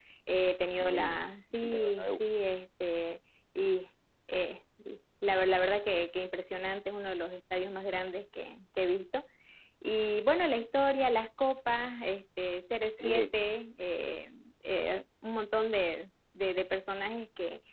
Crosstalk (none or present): present